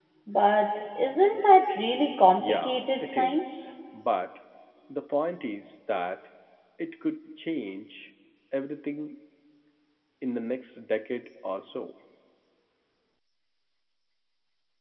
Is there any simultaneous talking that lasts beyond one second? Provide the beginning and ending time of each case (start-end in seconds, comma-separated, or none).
2.4-3.7